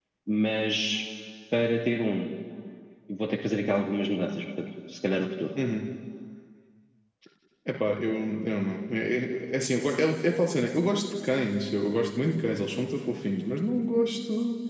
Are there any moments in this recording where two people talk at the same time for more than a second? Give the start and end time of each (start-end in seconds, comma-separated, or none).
none